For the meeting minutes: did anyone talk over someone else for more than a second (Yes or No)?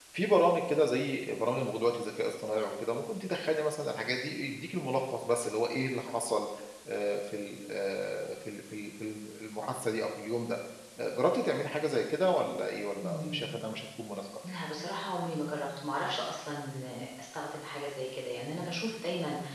No